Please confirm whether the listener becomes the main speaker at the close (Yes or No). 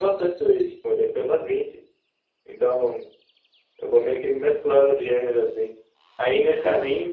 No